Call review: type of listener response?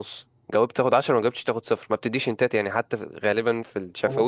taking over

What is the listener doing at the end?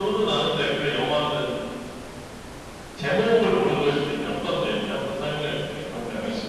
taking over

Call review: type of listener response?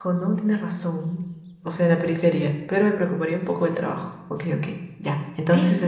taking over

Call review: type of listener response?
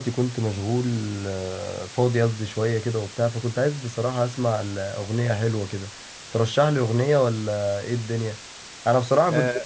taking over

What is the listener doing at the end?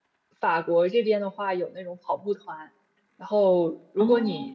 listening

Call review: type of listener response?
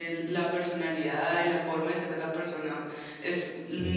listening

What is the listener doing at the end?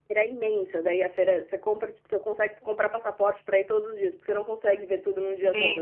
taking over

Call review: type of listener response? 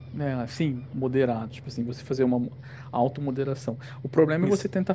listening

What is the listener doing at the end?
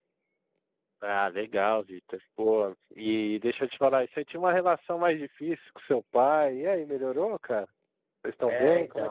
taking over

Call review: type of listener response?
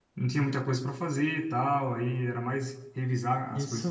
taking over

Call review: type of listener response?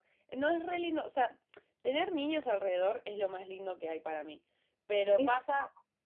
listening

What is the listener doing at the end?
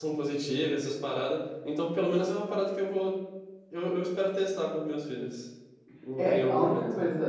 taking over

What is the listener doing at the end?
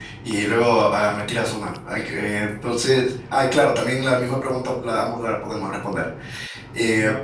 listening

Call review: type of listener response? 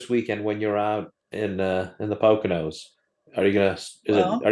listening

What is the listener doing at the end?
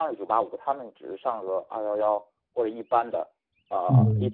listening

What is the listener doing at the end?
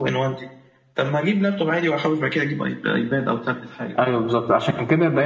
taking over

